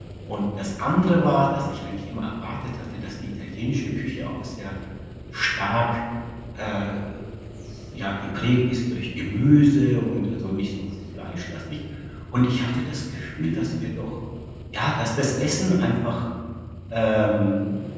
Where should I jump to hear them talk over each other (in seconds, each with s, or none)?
none